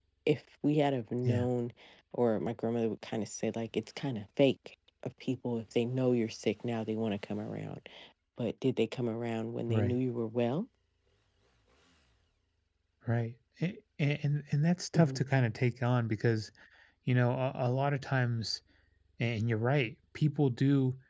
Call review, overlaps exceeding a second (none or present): none